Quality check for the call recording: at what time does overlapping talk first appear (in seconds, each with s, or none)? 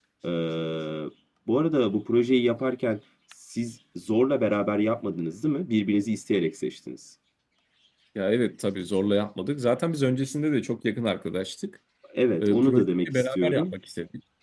12.4 s